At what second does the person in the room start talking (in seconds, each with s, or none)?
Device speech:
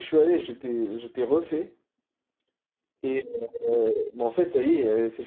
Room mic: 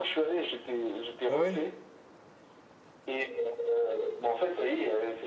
1.3 s